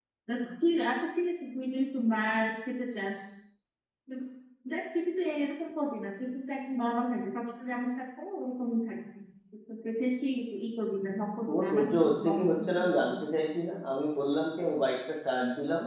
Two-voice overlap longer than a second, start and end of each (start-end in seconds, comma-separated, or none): 11.5-13.2